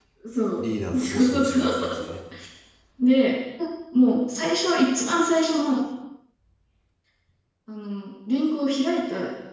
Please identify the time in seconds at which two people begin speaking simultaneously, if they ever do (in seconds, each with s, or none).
0.9 s